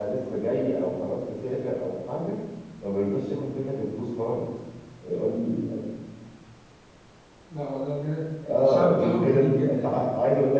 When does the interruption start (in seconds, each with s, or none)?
8.4 s